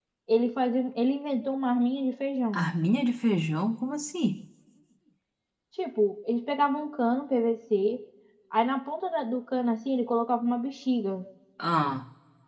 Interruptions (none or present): none